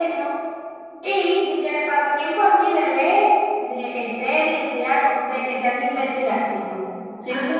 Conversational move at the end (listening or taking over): listening